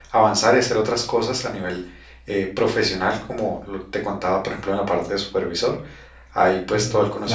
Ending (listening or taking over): listening